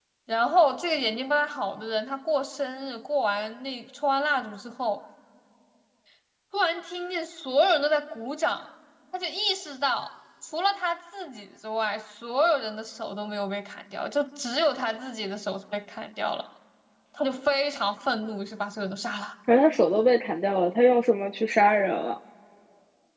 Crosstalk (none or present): none